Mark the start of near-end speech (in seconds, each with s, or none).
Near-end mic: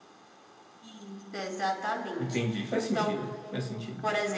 2.2 s